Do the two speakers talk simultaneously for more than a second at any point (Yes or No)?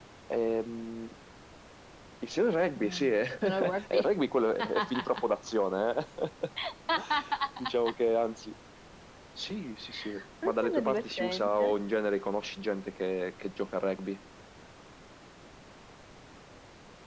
Yes